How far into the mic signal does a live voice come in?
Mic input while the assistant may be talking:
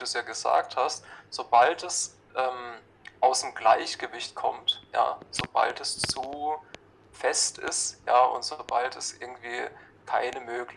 none

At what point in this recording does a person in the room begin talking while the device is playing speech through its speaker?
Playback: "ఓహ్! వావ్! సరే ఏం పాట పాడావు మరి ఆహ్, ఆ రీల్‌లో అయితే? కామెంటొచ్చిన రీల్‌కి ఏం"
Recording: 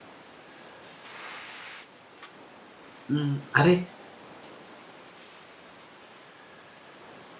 3 s

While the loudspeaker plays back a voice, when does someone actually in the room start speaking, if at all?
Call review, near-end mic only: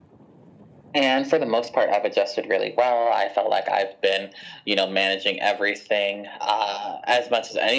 none

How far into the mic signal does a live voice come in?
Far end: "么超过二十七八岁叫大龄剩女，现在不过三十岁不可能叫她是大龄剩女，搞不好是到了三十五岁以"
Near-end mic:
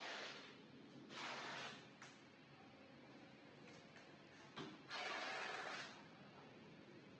none

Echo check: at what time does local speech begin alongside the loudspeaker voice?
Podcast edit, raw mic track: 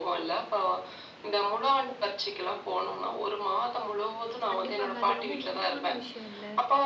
5 s

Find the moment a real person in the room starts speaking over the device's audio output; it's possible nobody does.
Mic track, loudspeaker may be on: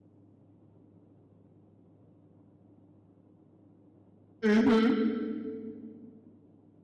4 s

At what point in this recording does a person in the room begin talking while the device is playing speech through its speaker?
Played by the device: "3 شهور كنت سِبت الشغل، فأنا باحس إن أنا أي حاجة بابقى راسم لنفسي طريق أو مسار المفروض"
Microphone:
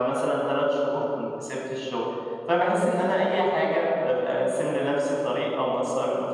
none

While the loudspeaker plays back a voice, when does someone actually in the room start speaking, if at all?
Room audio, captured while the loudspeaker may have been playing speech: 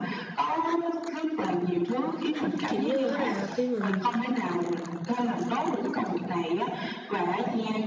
3 s

